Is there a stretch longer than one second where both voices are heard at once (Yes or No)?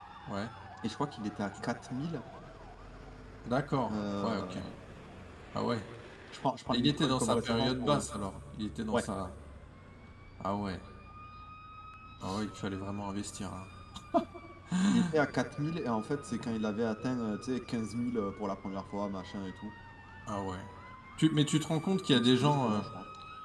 Yes